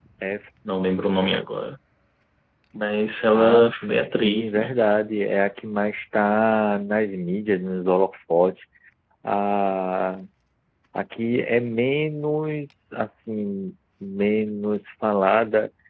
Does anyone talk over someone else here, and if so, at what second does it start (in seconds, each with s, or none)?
3.3 s